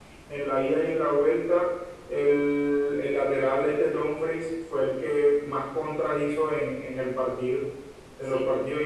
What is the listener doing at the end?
listening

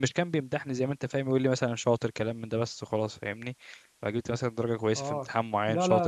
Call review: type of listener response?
taking over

